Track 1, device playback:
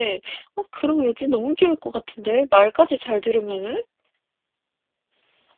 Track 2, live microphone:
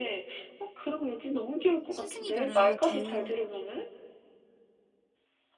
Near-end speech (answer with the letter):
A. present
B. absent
A